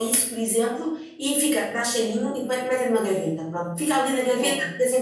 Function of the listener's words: listening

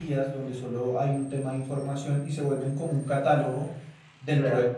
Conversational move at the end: listening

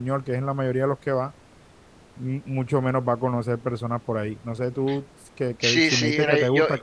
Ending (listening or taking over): taking over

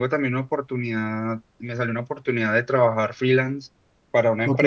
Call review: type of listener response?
listening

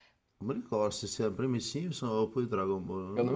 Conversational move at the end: taking over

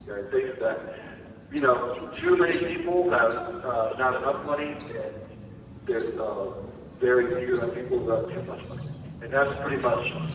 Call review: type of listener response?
listening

